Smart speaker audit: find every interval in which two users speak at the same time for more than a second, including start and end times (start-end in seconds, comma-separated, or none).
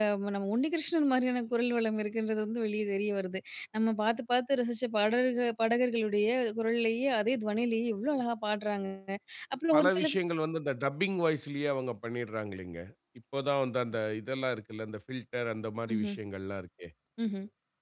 none